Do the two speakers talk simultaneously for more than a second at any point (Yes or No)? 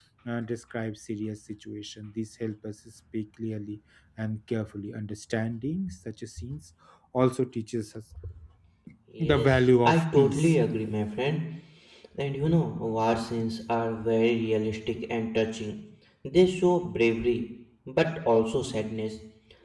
Yes